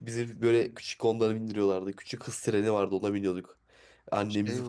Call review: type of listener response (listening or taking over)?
listening